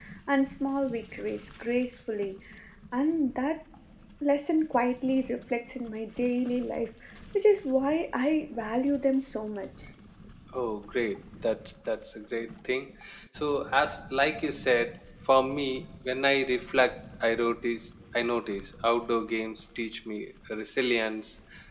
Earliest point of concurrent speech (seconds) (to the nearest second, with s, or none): none